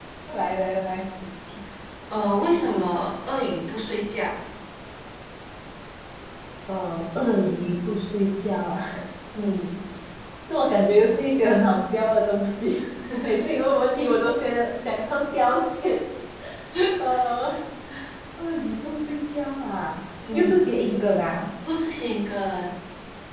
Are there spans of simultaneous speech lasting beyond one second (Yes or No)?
No